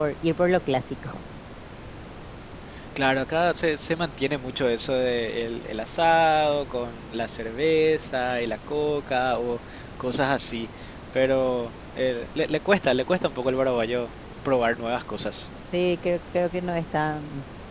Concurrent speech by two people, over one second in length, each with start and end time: none

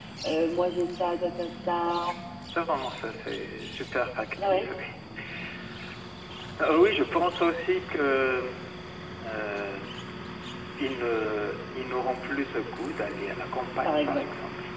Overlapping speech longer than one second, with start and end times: none

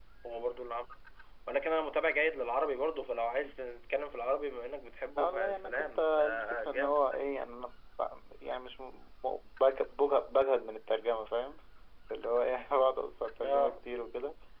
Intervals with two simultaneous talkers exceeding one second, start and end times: 5.2-7.1

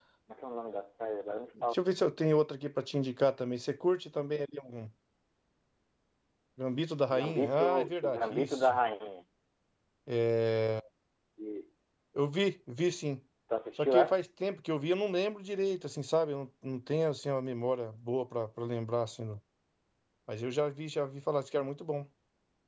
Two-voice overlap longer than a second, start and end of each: 7.1-8.7

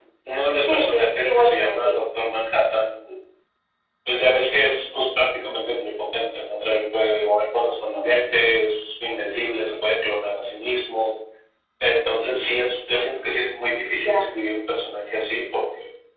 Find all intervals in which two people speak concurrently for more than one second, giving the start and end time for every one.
0.7-2.0

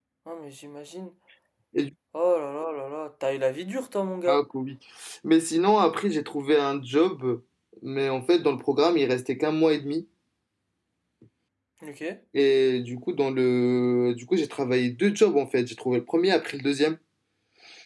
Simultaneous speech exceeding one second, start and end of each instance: none

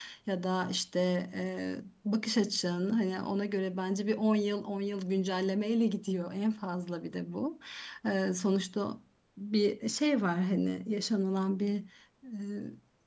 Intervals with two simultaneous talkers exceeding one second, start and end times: none

